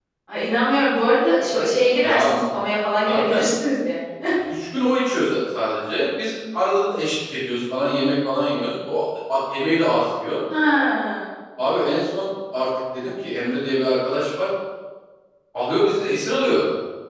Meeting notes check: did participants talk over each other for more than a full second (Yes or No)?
No